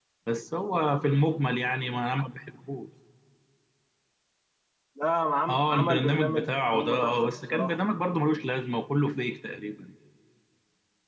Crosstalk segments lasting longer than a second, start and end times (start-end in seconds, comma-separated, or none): 5.5-7.8